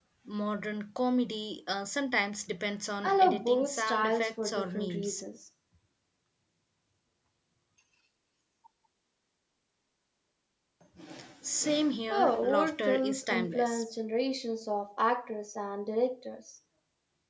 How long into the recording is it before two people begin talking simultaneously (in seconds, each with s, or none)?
3.0 s